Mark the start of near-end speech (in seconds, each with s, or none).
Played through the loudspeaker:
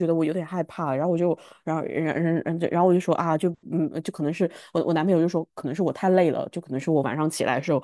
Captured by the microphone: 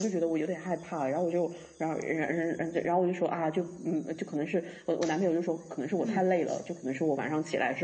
6.0 s